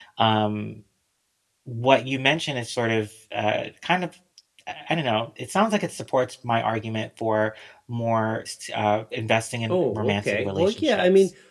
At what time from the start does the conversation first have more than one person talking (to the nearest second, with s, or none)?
10 s